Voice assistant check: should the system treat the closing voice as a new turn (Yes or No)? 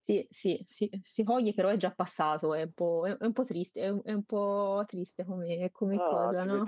Yes